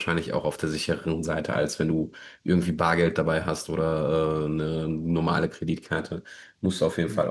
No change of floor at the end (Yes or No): Yes